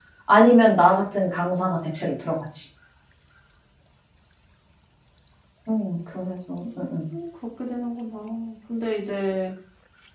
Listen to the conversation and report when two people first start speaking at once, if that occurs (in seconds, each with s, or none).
none